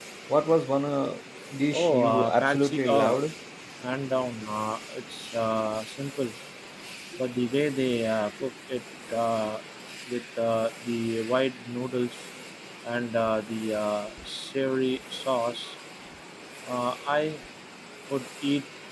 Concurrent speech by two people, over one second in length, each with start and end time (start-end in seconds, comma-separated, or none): 1.8-3.1